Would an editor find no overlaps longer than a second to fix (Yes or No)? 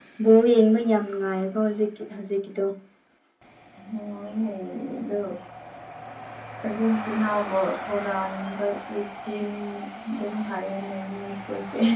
Yes